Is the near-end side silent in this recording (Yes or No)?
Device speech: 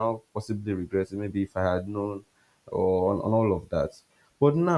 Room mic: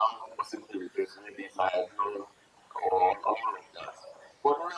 Yes